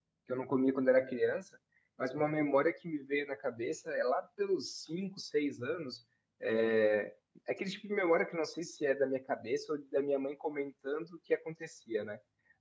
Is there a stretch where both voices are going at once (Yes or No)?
No